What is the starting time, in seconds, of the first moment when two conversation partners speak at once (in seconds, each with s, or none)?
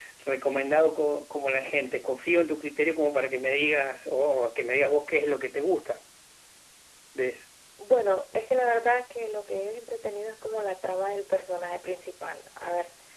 none